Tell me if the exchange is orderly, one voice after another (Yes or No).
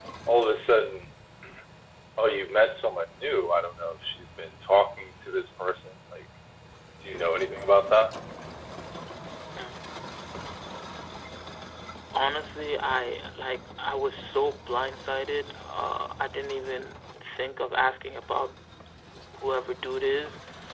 Yes